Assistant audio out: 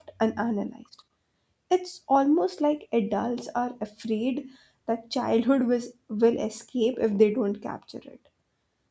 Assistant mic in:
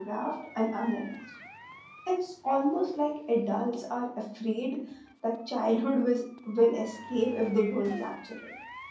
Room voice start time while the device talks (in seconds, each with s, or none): none